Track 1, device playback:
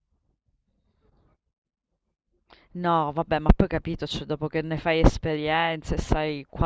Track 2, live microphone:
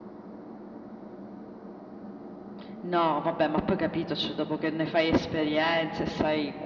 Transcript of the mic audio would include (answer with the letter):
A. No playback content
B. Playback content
B